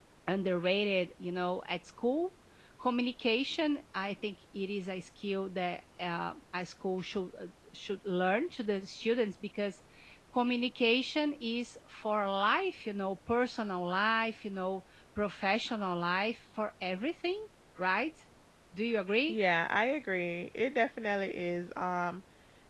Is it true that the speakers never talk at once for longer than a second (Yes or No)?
Yes